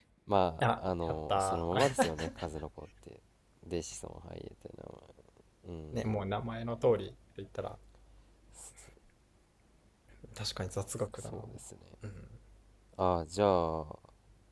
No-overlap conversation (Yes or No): No